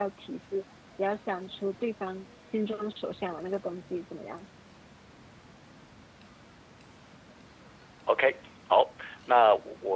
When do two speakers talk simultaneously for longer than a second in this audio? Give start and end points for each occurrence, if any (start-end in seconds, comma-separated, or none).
none